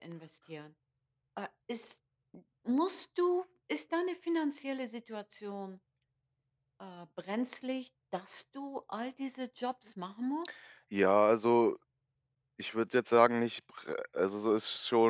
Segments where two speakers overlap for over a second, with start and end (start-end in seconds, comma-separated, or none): none